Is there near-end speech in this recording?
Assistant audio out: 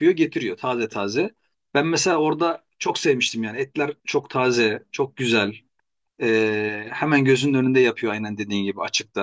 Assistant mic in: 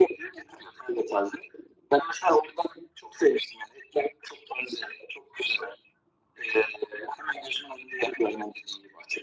No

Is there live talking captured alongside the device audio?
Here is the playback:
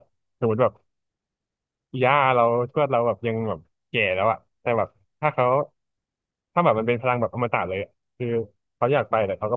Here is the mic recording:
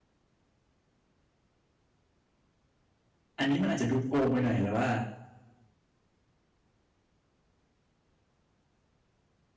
Yes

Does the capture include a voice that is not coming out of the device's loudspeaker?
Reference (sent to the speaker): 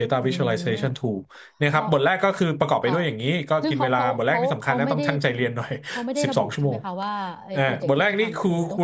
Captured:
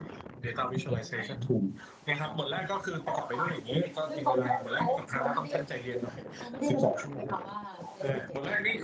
No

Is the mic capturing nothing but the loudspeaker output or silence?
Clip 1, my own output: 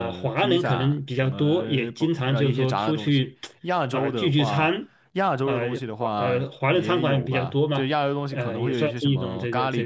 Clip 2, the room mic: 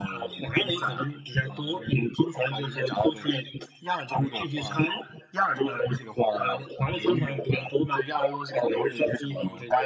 Yes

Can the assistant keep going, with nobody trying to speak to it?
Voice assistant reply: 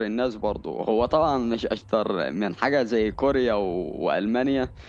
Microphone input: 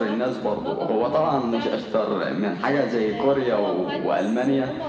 No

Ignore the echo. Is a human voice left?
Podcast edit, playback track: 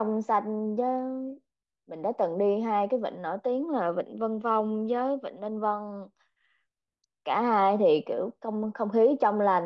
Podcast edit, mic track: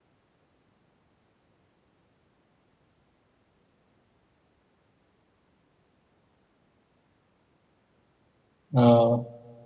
Yes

